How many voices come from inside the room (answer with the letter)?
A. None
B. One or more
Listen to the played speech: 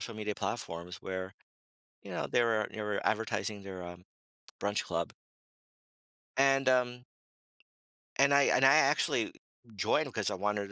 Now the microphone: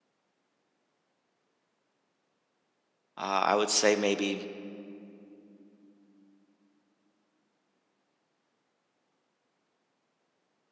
B